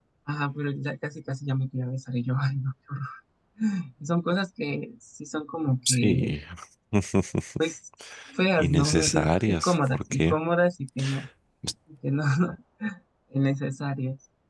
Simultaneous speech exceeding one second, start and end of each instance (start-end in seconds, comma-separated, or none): 8.6-10.4